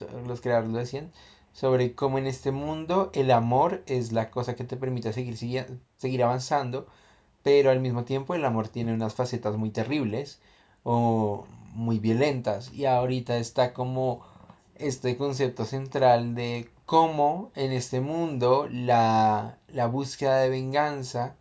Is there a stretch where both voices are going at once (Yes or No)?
No